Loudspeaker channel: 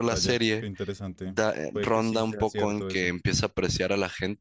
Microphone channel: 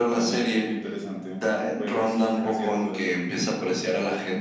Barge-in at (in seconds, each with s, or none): none